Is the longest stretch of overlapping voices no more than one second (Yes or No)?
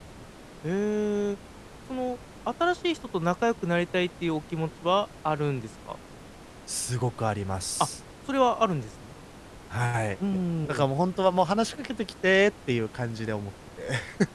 Yes